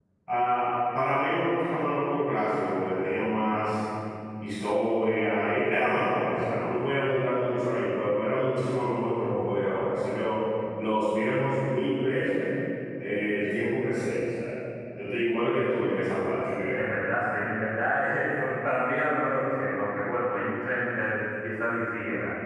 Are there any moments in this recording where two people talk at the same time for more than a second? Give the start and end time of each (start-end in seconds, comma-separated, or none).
none